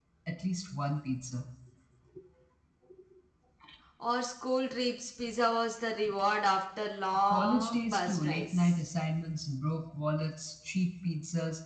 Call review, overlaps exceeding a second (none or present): present